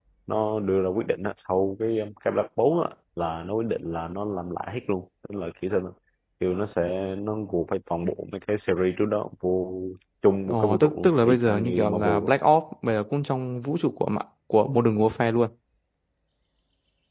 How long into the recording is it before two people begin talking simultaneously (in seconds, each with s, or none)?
10.5 s